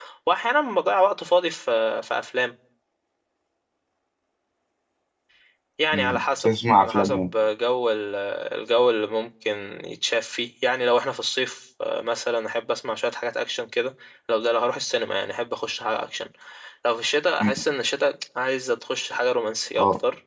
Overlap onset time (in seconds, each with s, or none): 5.9 s